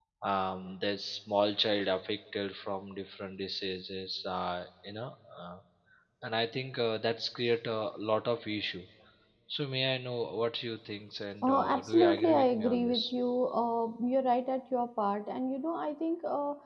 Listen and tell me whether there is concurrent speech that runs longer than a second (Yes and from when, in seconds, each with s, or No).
Yes, from 11.4 s